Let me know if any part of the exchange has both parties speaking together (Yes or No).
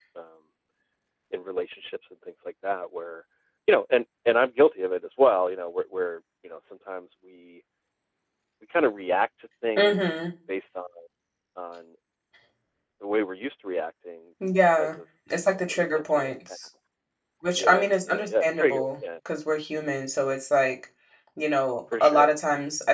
Yes